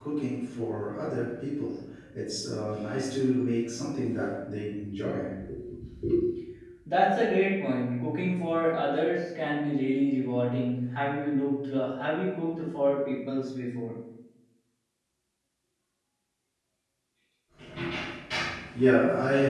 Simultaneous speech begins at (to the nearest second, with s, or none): none